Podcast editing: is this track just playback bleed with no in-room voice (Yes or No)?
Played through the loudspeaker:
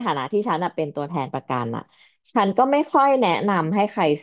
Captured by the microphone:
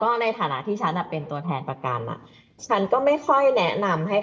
Yes